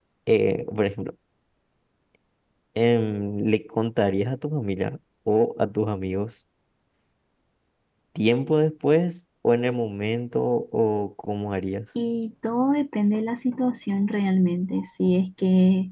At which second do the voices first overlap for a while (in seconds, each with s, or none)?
none